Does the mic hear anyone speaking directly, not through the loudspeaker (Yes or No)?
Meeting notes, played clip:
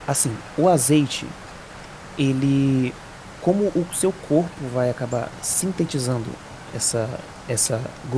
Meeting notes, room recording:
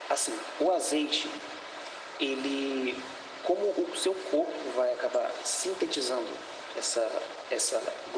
No